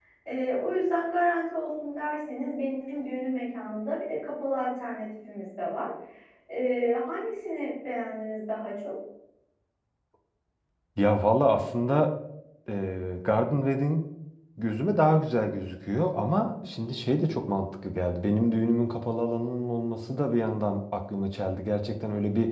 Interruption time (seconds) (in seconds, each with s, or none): none